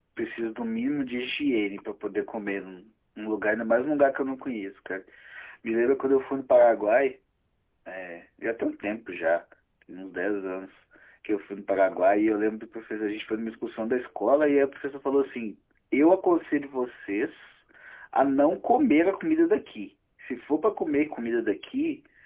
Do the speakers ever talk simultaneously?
No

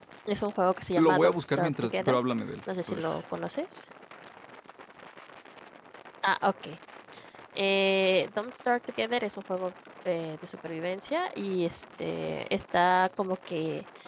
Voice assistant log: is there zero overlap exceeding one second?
No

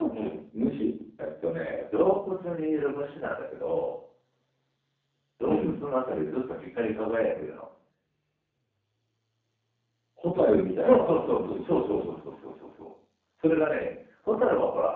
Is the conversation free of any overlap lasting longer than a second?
No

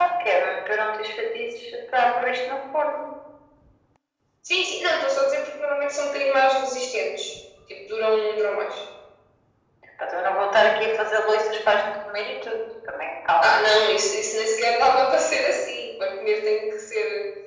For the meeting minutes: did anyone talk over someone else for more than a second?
No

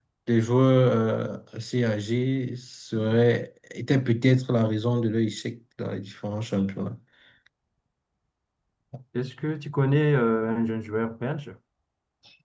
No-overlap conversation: Yes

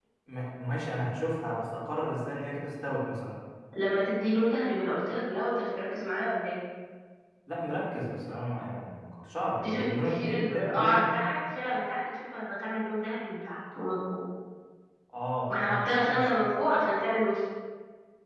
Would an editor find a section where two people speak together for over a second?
Yes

